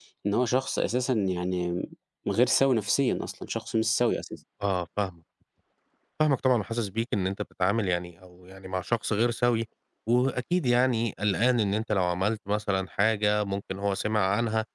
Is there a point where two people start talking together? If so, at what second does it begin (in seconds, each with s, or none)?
none